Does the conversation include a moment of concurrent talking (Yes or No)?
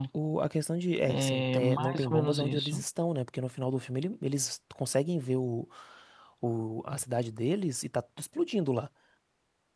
Yes